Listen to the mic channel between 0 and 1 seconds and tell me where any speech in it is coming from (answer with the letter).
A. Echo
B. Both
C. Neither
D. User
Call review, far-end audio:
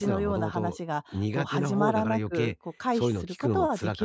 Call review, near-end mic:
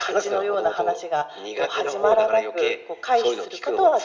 A